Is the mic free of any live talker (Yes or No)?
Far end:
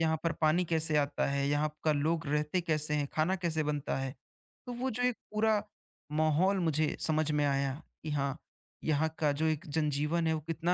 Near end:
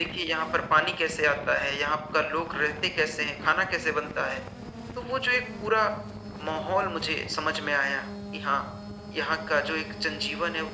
Yes